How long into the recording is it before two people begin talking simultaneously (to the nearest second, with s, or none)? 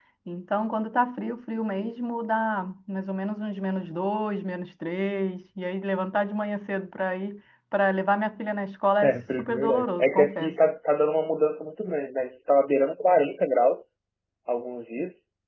9 s